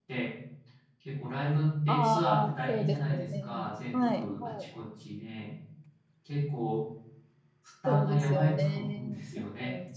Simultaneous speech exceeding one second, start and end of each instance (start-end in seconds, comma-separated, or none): 1.9-4.5, 7.9-9.4